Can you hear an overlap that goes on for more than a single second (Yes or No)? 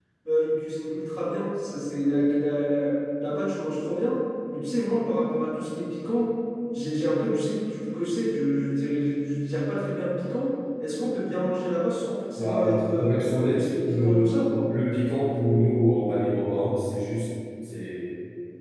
Yes